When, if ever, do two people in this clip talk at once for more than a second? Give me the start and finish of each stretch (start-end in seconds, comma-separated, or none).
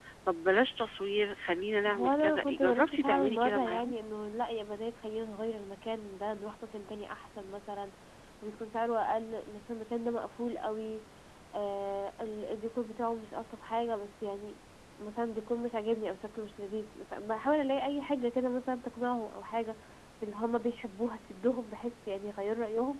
1.9-3.9